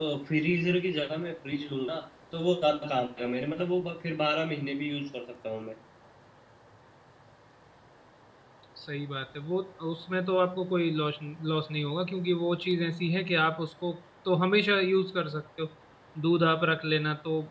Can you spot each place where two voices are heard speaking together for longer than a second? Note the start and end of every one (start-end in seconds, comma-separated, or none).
none